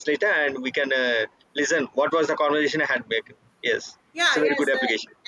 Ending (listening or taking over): taking over